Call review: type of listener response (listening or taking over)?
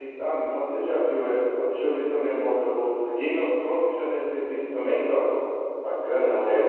taking over